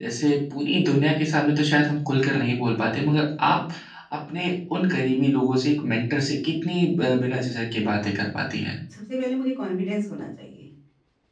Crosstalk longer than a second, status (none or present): none